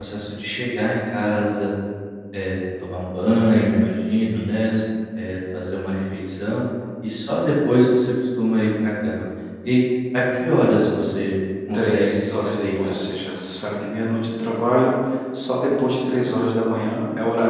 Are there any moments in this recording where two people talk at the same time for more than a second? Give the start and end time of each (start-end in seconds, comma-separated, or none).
11.7-12.9